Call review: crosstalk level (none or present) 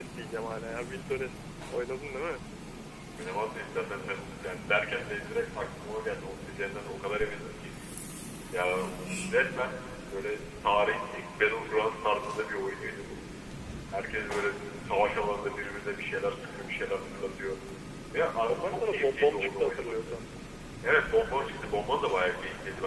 present